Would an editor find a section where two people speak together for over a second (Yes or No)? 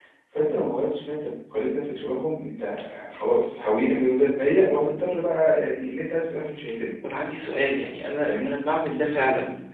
No